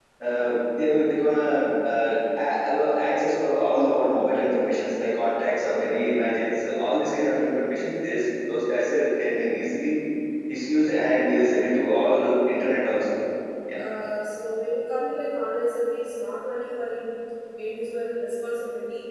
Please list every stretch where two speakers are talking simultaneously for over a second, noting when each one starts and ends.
none

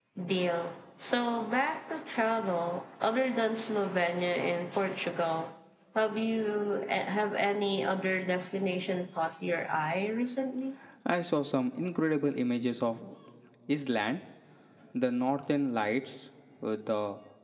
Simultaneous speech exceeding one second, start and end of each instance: none

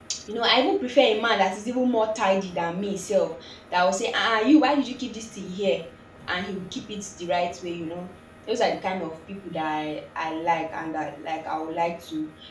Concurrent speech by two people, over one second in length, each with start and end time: none

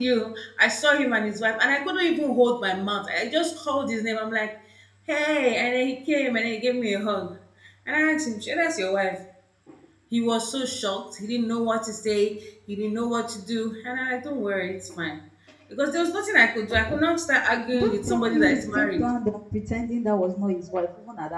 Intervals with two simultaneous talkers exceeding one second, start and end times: 17.7-19.0

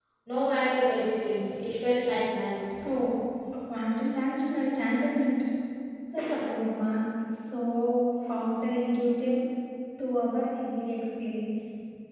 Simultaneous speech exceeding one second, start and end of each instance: none

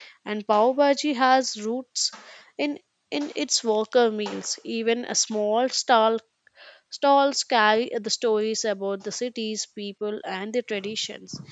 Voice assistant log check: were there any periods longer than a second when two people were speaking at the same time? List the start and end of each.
none

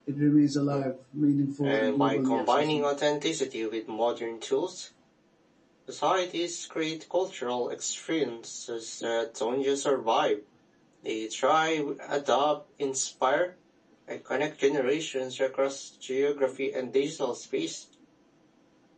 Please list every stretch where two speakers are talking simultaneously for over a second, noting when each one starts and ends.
1.6-2.9

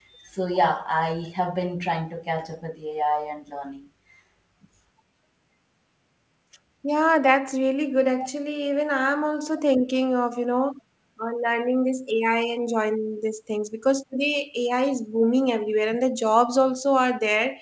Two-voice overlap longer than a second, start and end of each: none

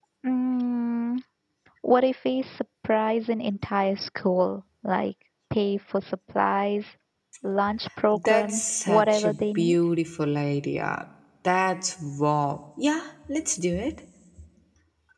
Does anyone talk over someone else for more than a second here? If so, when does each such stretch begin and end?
8.2-9.8

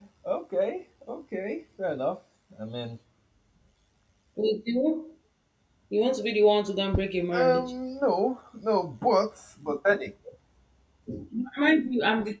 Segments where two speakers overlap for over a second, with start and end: none

